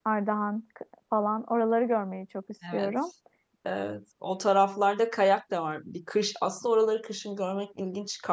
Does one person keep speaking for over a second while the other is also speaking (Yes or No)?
No